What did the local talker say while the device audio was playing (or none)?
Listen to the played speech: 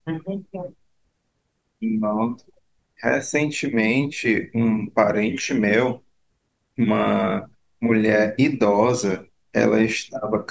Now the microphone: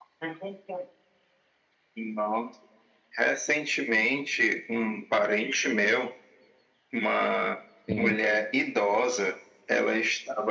Sim.